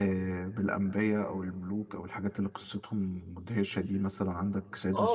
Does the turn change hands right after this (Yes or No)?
Yes